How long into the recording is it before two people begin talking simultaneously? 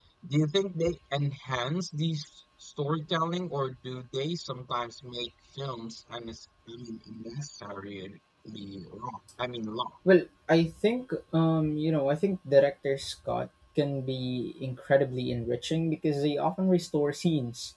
none

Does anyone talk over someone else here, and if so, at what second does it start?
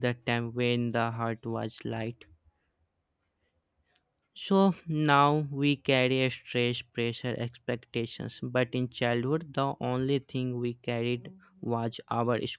none

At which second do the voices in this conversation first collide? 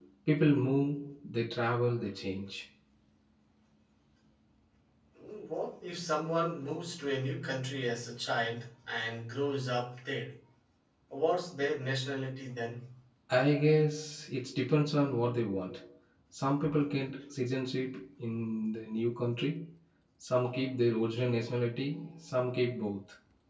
none

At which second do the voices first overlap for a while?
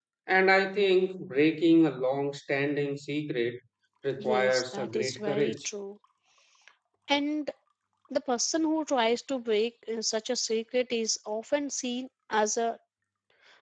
4.2 s

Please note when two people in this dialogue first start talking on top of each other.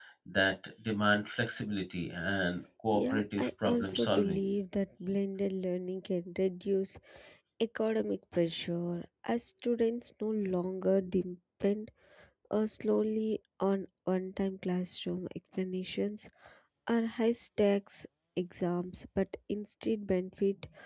2.9 s

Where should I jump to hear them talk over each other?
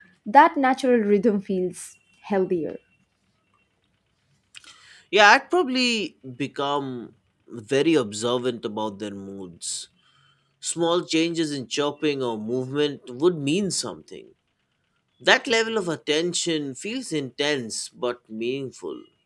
none

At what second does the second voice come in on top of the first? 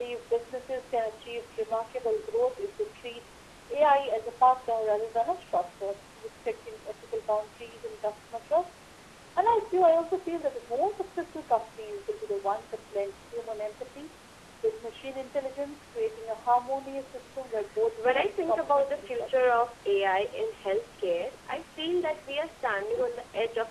18.0 s

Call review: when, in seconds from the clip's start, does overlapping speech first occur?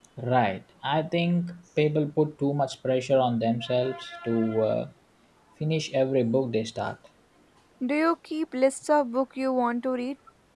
none

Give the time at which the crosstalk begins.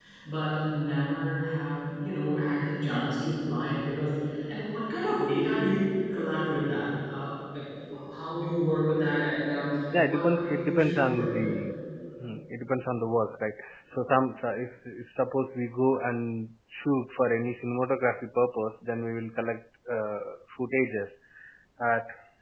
9.9 s

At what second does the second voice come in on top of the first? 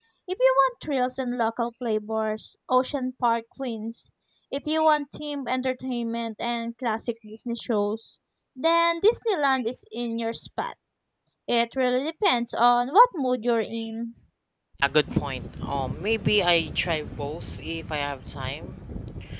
none

